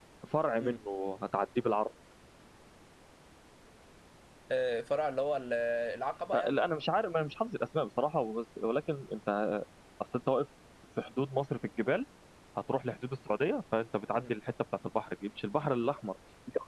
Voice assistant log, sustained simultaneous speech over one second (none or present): none